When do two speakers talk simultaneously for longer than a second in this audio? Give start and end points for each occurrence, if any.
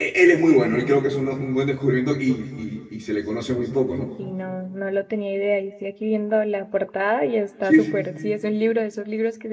none

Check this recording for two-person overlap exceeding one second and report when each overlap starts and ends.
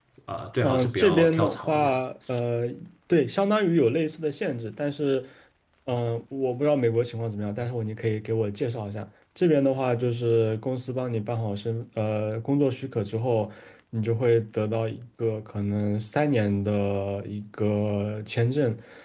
0.6-2.0

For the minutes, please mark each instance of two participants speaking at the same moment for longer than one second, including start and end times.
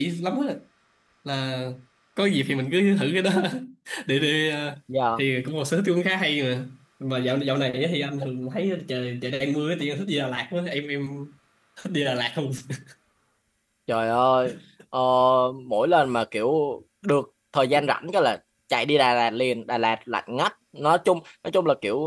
none

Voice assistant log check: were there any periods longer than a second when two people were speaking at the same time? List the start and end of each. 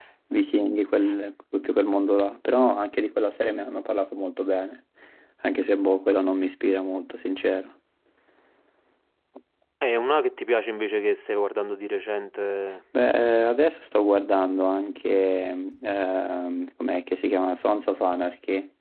none

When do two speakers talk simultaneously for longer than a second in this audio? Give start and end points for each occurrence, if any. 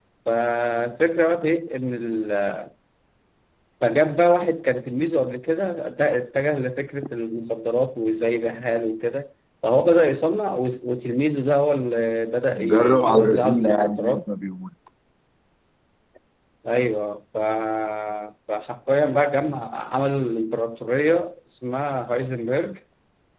12.7-14.2

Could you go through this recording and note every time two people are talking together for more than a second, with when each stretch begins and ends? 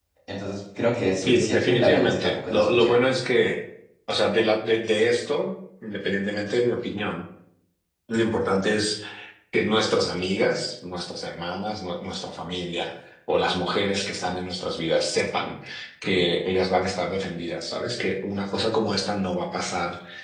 1.2-3.0

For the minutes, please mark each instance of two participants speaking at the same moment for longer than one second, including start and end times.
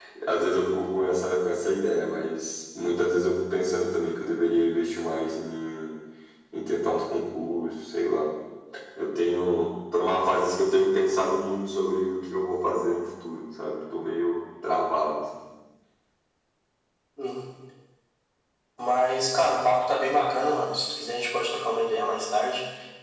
none

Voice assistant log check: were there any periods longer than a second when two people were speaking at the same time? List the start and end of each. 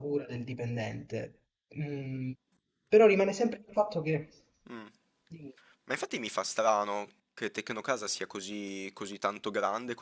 none

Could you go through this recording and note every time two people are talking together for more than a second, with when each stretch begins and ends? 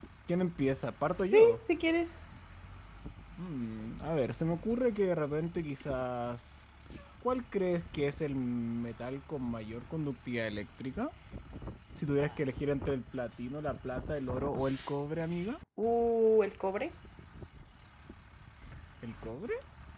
none

